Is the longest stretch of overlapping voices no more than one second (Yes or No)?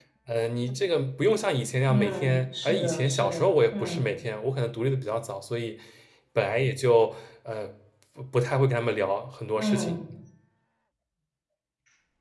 No